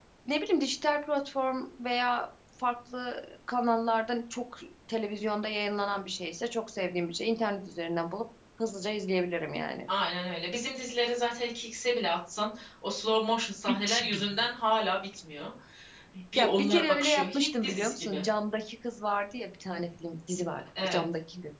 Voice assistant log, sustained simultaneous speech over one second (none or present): present